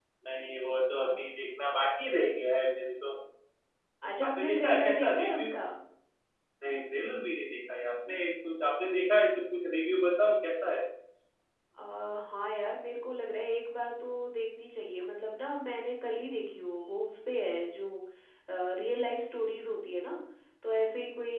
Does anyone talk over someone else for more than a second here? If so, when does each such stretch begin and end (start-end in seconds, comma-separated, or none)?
4.2-5.5